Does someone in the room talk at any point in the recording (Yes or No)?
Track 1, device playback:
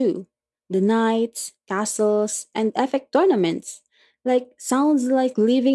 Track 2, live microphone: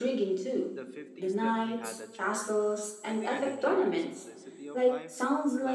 Yes